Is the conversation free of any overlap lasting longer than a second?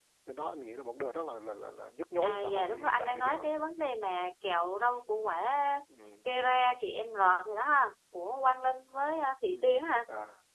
No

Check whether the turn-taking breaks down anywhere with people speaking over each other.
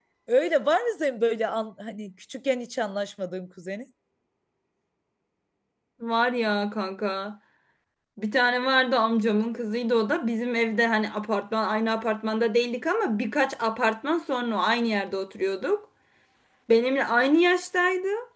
No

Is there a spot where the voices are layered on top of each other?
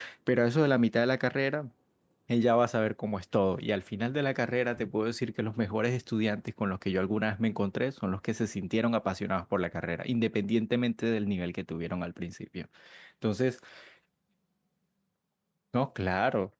No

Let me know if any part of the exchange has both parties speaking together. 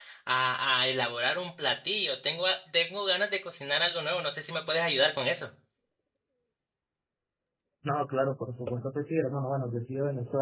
No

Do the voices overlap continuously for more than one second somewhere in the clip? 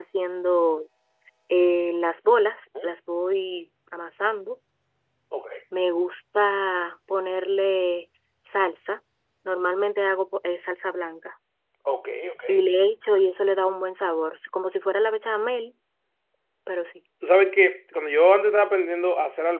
No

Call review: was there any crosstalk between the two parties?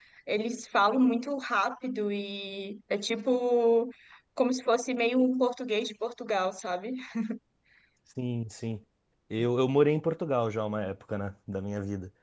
No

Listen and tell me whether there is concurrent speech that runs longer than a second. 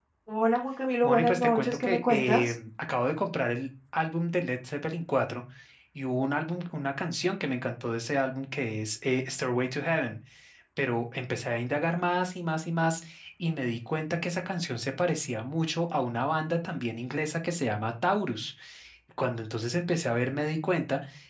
Yes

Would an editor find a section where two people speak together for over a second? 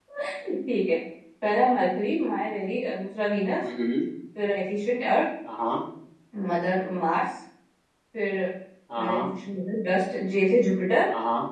No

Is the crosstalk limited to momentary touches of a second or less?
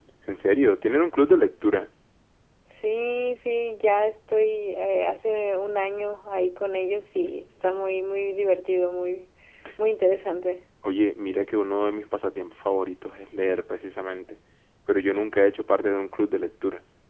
Yes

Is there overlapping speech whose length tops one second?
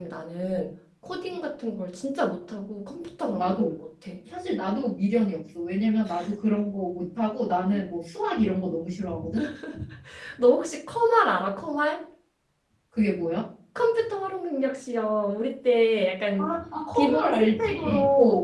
Yes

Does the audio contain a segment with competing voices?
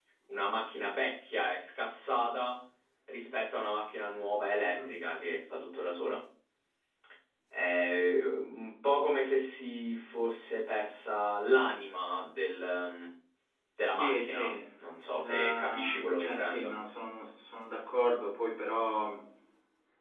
Yes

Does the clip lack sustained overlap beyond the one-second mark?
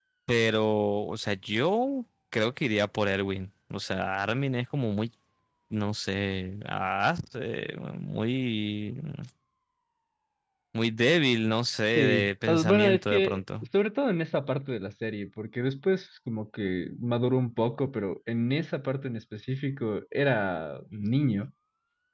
No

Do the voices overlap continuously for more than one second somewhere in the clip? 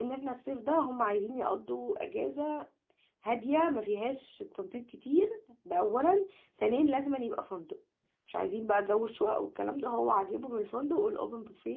No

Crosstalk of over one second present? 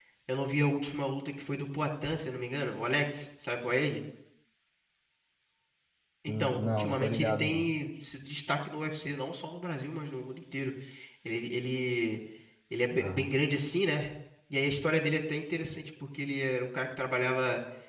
Yes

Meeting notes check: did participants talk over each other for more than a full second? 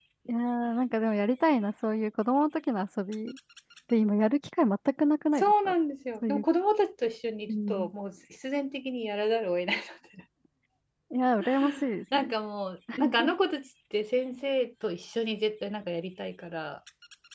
No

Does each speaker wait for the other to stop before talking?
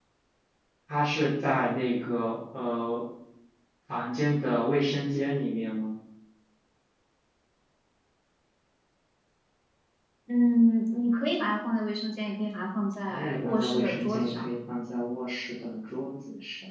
No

